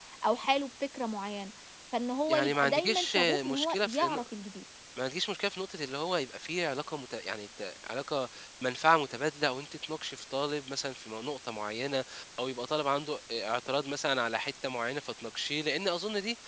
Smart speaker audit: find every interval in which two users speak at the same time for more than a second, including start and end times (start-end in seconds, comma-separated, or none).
2.3-4.1